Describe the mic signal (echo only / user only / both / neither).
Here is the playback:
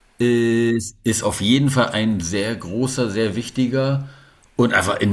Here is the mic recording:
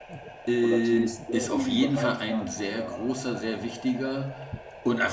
both